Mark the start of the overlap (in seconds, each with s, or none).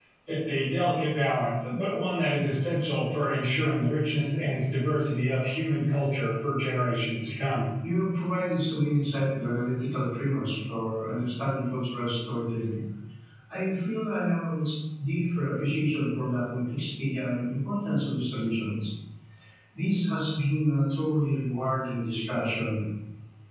none